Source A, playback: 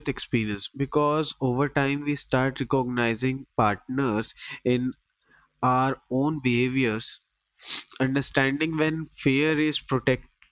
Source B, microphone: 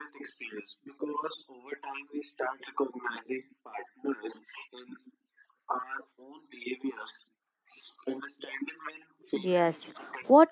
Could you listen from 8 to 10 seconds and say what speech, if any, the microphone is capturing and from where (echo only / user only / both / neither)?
both